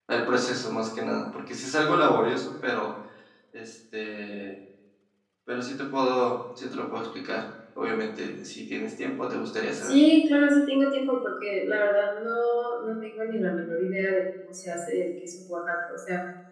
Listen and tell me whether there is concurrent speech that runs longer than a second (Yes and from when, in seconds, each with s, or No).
No